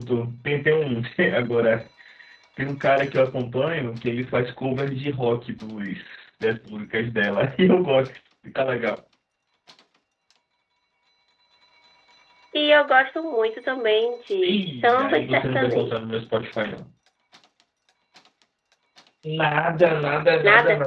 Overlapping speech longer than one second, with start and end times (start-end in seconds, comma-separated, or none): 14.5-16.0